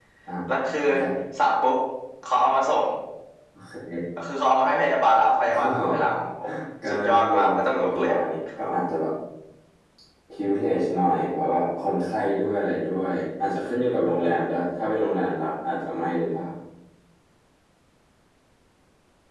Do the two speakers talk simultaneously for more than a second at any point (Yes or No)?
Yes